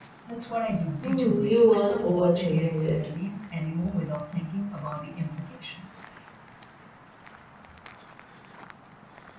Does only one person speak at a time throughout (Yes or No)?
No